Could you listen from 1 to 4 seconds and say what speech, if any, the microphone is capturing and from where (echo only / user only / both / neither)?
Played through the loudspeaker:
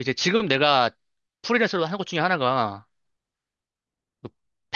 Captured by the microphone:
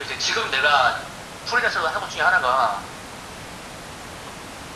echo only